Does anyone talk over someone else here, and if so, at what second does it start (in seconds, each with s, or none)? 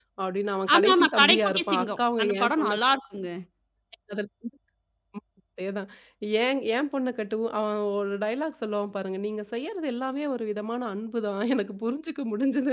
0.7 s